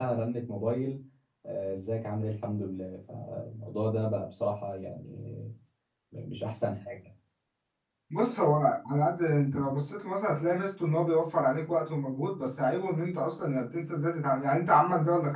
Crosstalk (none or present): none